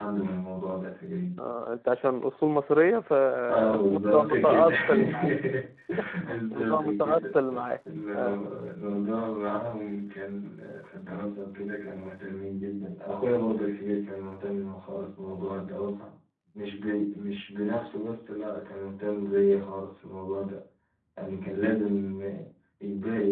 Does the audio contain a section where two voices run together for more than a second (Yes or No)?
Yes